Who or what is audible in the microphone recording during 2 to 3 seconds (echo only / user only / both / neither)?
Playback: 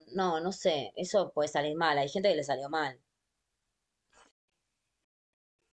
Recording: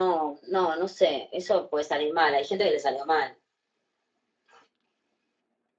echo only